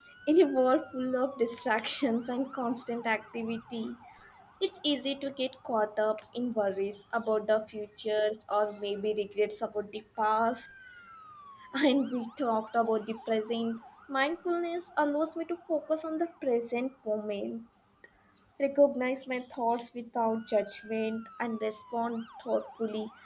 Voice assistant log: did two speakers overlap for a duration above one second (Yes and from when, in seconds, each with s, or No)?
No